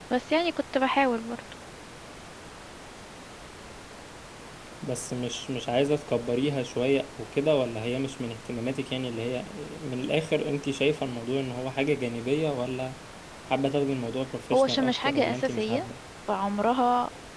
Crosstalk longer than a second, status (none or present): present